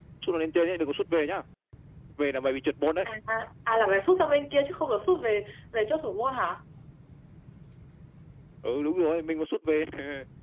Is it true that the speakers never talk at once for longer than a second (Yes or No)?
Yes